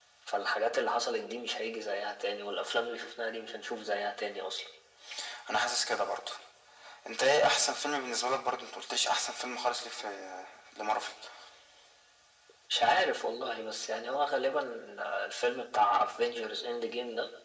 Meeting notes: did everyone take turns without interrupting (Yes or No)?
Yes